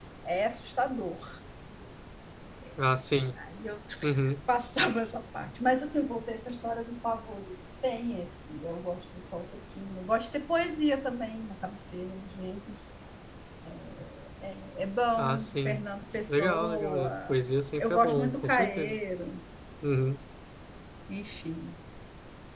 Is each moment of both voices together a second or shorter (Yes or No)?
No